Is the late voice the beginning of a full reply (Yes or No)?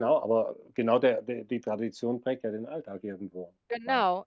Yes